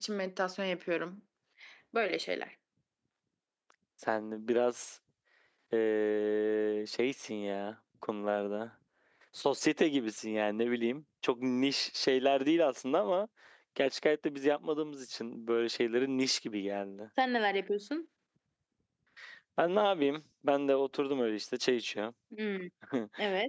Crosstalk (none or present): none